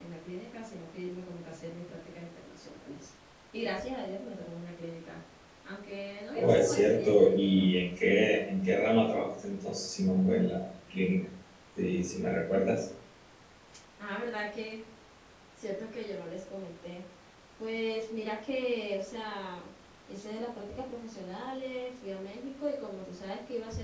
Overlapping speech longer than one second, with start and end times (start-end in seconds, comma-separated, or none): 6.3-7.6